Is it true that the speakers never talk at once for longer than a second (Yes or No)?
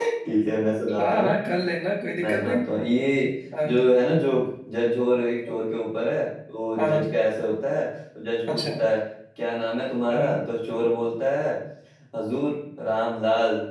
Yes